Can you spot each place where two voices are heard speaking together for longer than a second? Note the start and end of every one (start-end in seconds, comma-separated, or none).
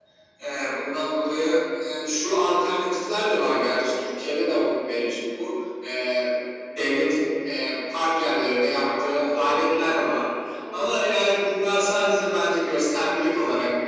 8.8-10.1